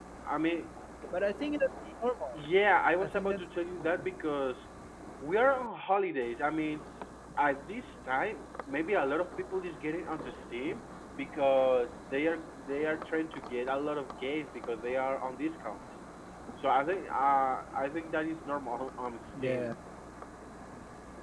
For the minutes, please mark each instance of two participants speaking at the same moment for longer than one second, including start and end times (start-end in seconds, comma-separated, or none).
none